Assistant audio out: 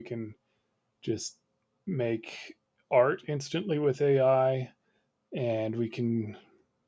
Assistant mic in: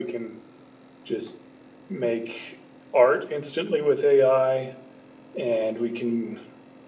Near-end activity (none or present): none